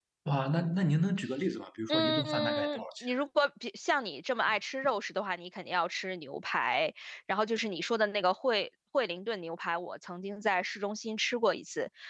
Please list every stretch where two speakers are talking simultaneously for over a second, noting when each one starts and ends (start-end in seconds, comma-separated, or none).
1.9-3.1